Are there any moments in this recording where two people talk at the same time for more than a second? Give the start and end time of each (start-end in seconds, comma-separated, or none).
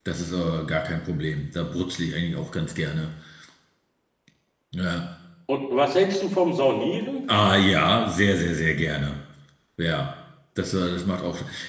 none